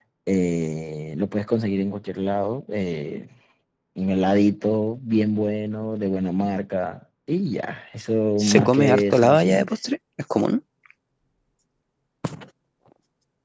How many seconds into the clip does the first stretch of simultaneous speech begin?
8.4 s

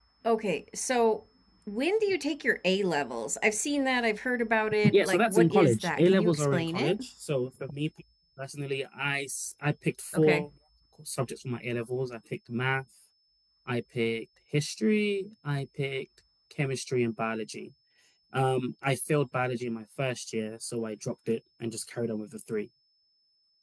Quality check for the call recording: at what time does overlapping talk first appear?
4.9 s

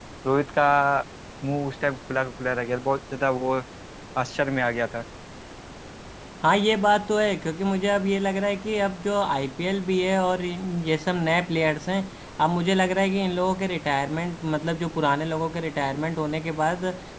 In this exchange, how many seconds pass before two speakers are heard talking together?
none

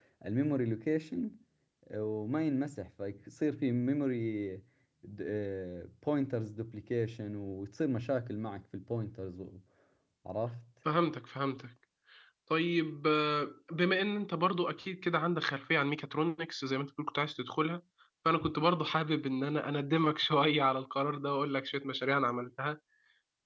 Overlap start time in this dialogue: none

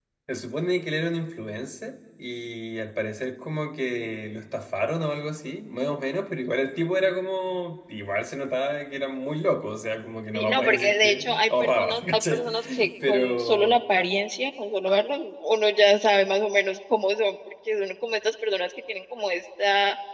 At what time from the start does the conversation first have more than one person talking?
10.3 s

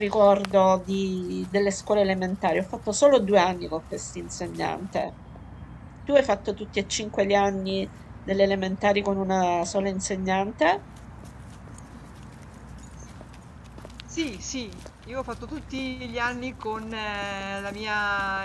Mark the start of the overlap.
none

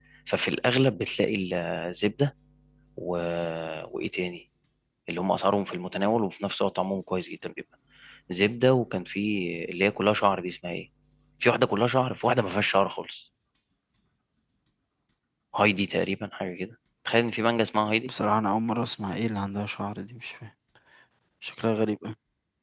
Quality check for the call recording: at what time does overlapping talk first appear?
none

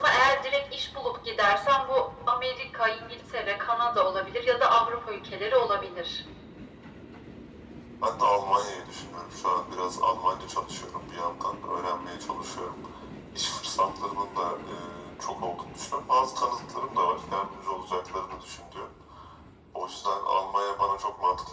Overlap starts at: none

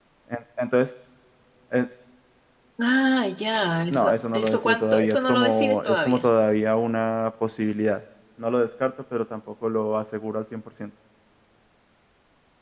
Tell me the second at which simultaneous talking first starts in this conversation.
3.9 s

